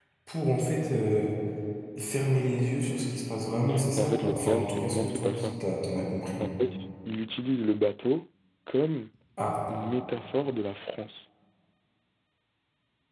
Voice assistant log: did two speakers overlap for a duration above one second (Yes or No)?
Yes